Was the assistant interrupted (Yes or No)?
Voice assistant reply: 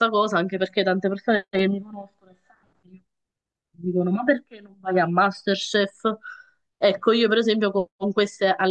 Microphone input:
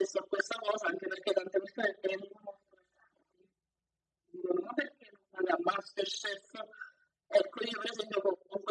No